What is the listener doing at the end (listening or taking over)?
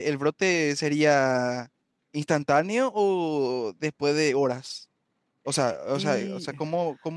listening